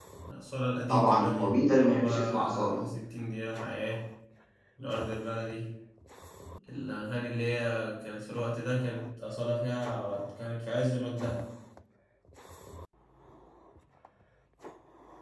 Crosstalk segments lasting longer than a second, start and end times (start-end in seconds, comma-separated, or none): 0.9-2.9